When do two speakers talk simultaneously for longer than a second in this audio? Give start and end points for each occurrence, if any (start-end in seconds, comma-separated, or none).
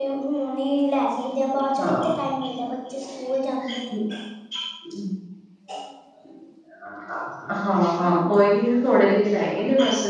none